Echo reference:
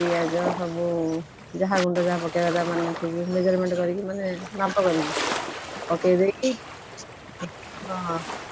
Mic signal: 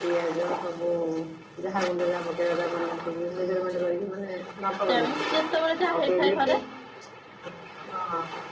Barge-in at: 4.9 s

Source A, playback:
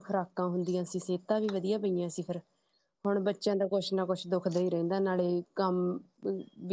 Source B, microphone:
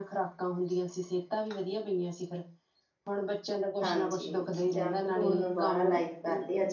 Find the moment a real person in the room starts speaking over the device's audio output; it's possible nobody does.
3.8 s

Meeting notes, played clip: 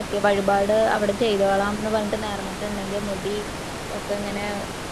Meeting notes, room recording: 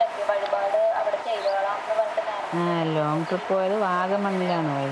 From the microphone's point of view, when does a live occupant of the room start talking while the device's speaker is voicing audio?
2.6 s

